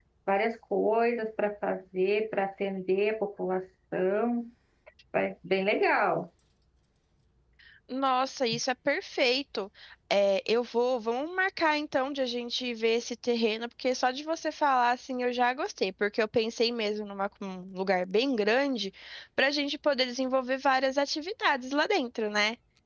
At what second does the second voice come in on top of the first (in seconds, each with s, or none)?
none